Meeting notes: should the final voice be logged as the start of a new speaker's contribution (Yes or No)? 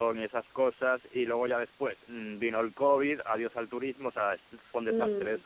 Yes